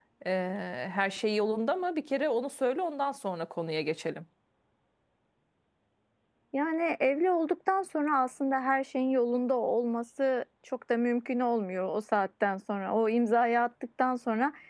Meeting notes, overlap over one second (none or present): none